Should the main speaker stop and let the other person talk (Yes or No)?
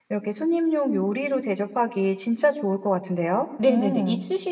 Yes